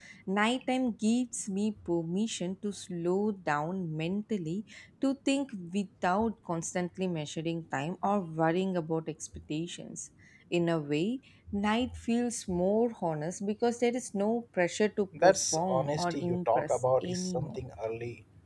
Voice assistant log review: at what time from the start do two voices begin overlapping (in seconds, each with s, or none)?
15.1 s